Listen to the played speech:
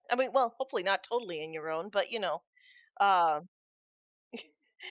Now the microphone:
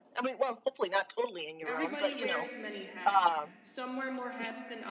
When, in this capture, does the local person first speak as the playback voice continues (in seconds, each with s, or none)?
1.6 s